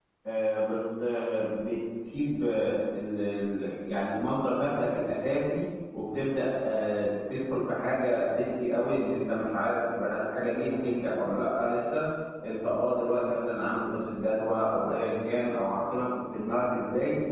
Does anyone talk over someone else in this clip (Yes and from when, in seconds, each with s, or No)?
No